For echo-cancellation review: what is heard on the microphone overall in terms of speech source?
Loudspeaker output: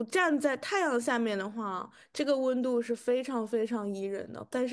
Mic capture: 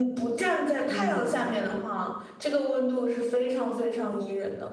both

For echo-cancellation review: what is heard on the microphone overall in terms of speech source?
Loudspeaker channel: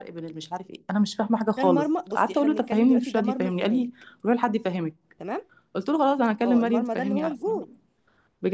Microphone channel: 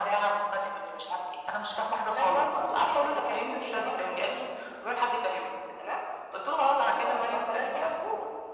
echo only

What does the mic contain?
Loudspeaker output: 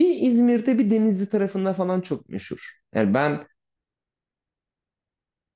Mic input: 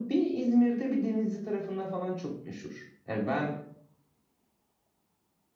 echo only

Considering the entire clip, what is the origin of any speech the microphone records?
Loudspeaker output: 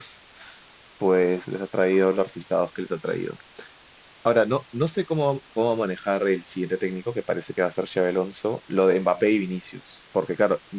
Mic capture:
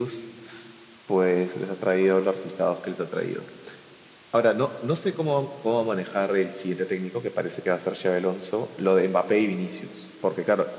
echo only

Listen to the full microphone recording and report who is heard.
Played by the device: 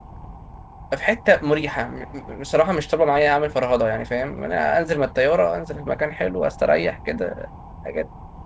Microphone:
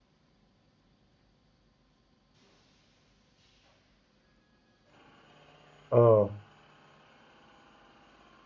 user only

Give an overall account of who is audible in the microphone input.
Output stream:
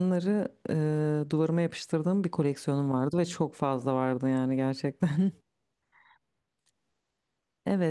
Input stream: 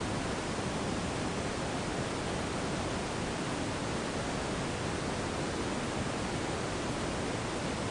neither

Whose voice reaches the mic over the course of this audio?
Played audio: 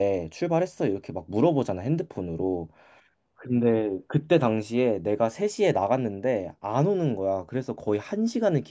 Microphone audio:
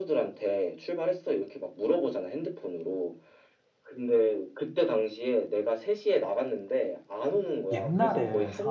both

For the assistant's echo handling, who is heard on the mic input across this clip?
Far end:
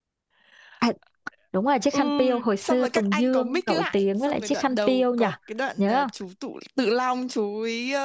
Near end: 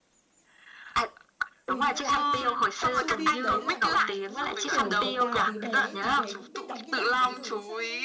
both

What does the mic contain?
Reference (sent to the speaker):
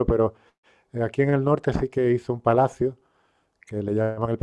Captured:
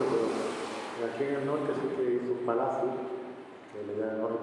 echo only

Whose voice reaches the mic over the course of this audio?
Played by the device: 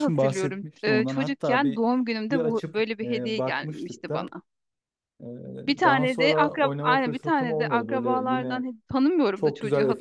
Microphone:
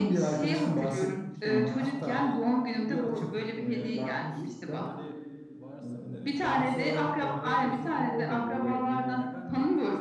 both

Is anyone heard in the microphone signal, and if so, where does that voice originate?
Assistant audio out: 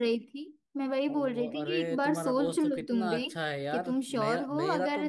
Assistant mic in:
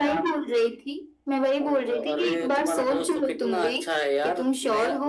echo only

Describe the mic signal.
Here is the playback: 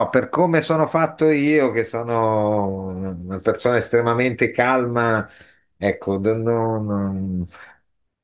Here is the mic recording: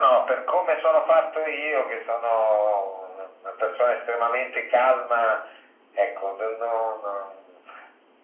echo only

